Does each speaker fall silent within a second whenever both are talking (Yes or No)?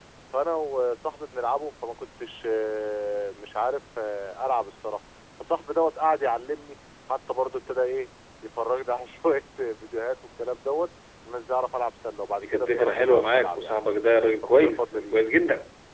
No